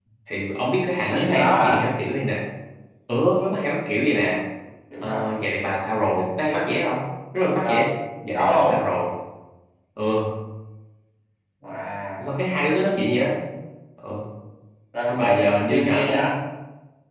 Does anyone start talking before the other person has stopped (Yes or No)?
Yes